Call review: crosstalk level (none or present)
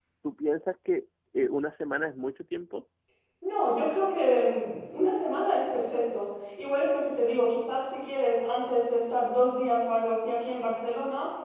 none